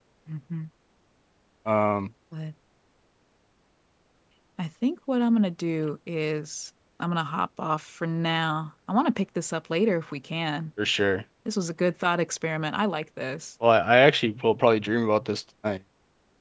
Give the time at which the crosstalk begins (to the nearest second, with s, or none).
none